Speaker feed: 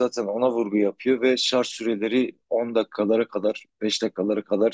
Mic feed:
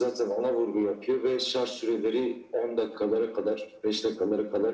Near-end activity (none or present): none